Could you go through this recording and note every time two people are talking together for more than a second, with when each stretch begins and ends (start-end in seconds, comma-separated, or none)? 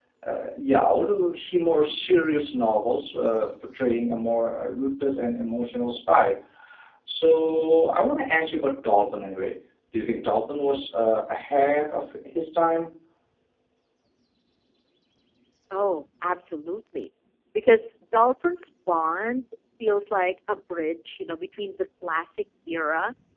none